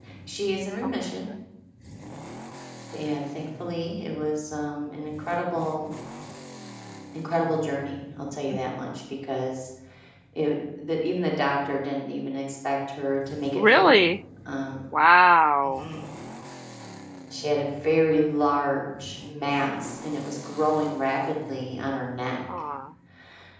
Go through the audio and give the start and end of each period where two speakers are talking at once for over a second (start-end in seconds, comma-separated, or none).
none